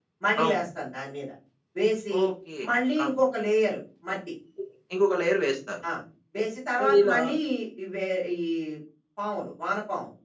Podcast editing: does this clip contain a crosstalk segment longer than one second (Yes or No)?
No